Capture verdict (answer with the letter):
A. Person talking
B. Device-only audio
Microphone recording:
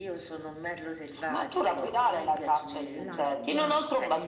A